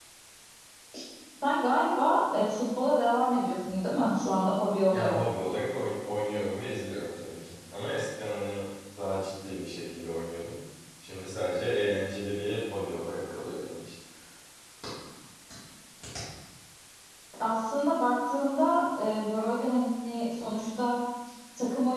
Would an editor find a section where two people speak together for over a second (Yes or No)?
No